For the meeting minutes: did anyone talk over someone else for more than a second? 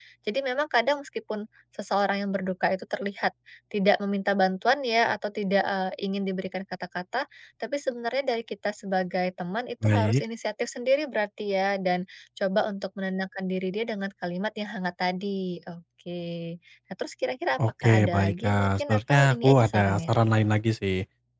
Yes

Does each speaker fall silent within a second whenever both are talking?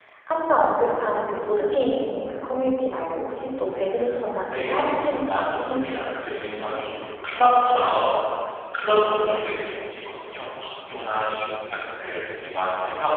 No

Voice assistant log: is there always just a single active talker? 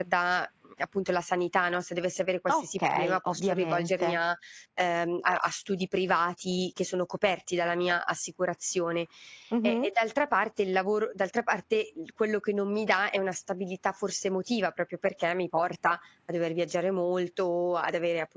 No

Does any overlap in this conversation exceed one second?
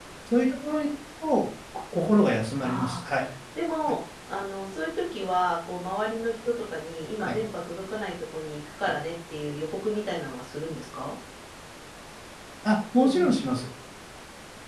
No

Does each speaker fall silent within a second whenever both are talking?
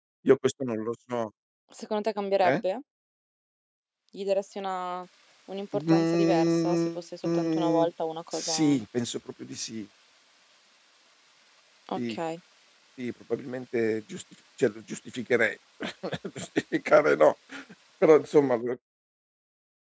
No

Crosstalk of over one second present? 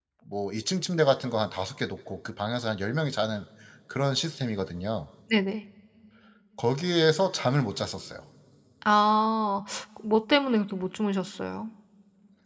No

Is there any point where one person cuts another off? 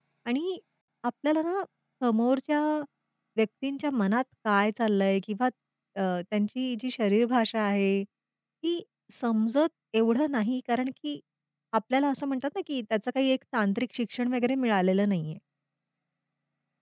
No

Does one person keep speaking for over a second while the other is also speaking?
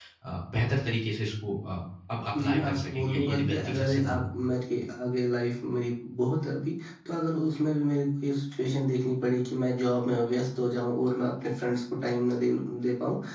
Yes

